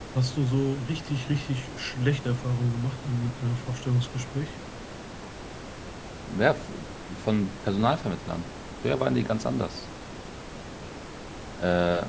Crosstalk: none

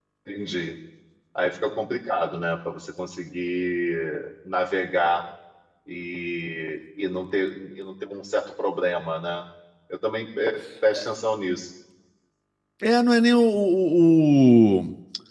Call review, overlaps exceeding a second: none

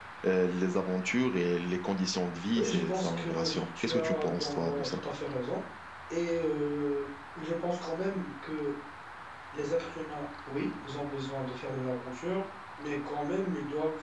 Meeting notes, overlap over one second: present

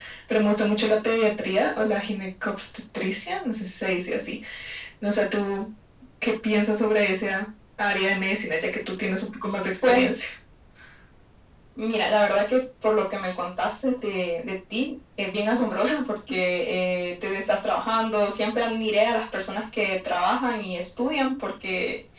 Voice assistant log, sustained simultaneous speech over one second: none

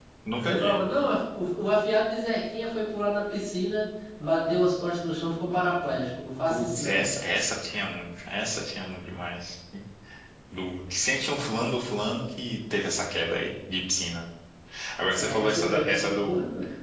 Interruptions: present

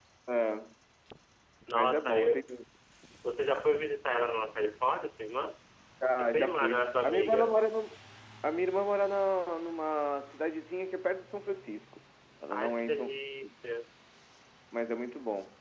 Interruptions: present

